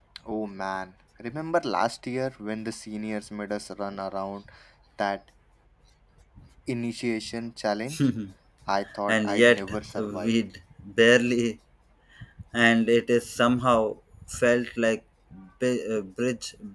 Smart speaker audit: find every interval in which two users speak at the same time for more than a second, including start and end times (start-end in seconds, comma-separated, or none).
9.1-10.3